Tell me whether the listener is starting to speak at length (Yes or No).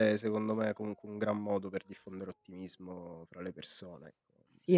Yes